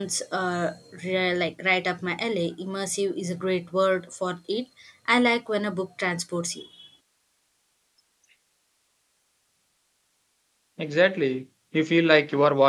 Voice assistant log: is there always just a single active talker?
Yes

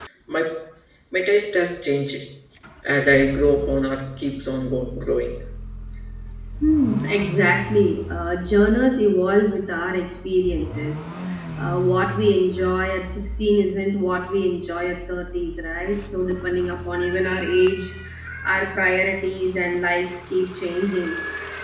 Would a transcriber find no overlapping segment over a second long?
Yes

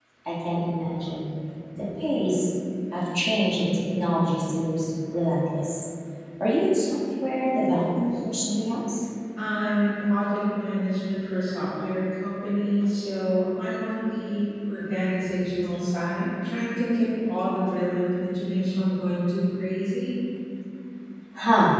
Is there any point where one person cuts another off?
No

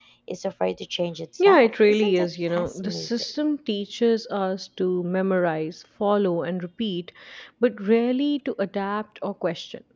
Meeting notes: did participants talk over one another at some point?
Yes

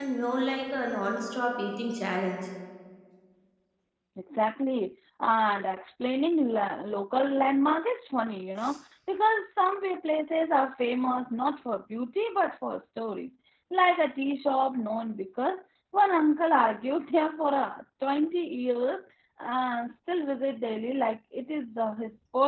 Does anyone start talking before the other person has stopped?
No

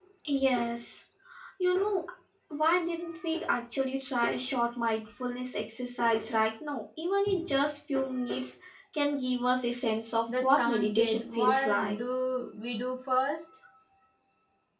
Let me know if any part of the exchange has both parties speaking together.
Yes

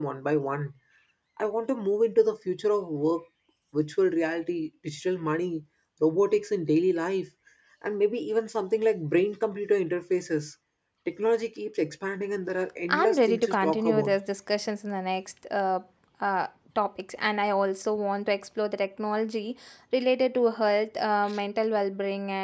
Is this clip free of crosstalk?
No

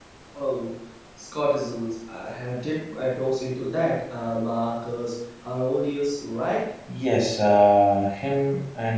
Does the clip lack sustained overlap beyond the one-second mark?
Yes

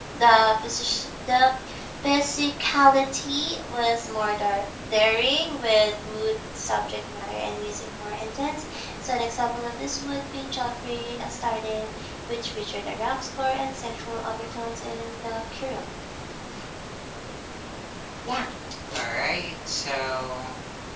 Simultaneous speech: No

